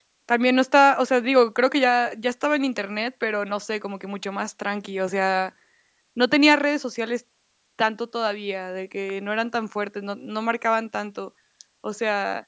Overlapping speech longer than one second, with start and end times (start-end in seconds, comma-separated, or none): none